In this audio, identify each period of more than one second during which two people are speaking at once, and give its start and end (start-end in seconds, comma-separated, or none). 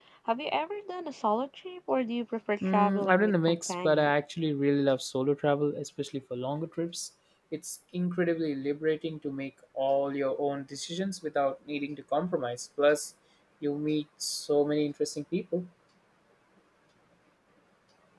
2.6-4.1